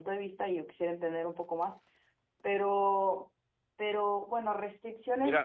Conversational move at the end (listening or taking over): taking over